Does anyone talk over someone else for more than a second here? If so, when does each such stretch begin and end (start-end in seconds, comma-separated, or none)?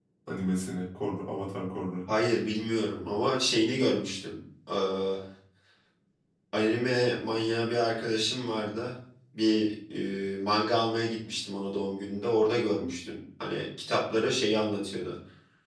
none